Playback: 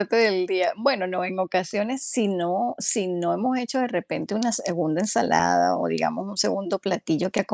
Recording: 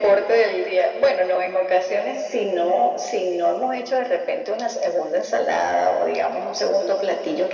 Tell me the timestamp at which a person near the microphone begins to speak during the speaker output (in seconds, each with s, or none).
none